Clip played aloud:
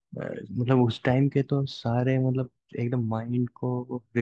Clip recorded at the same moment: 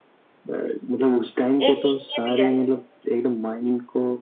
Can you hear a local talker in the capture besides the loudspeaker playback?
Yes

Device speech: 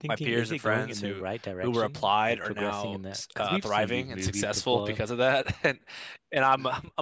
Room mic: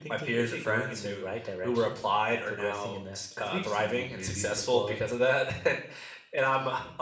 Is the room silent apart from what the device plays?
Yes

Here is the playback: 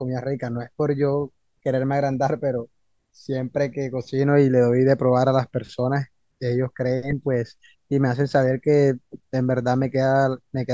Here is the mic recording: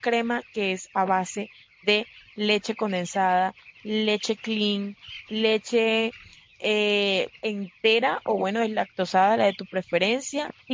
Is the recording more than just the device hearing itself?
Yes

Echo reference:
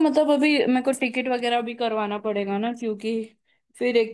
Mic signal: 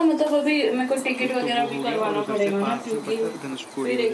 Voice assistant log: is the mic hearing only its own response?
No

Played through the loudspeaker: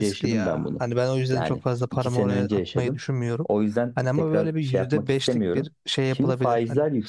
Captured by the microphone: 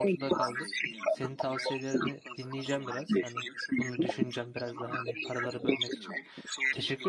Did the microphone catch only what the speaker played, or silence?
No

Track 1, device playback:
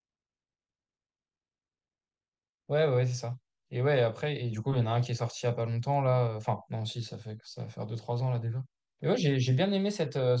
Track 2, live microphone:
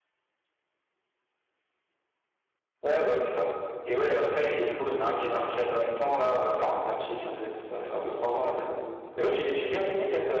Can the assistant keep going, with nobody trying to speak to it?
Yes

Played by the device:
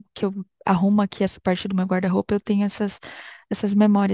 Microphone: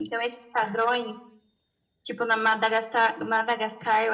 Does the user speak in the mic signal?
Yes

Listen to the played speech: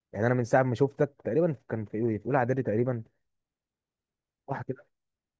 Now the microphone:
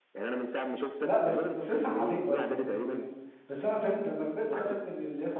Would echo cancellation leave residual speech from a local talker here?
Yes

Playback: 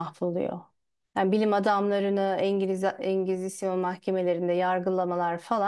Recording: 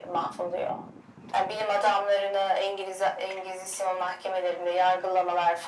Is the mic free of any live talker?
Yes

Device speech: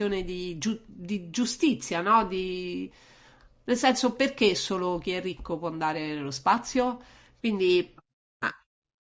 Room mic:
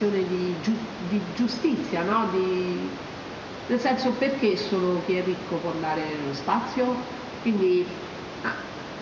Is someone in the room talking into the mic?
No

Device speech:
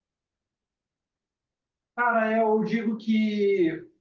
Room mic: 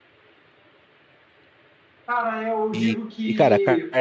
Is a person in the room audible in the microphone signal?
Yes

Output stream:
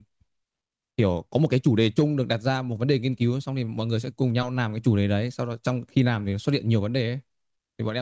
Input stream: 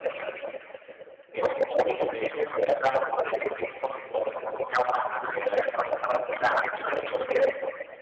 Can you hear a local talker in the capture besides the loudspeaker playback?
No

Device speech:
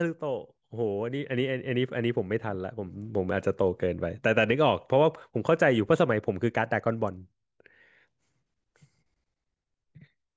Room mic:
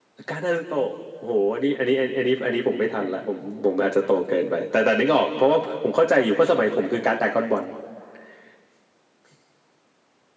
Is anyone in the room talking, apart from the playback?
No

